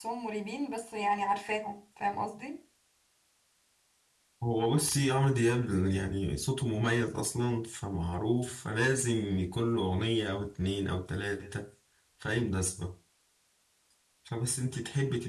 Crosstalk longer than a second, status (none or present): none